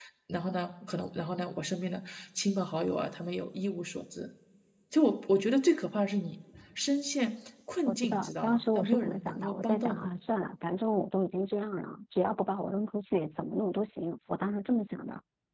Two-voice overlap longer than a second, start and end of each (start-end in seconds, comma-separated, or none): 7.9-10.0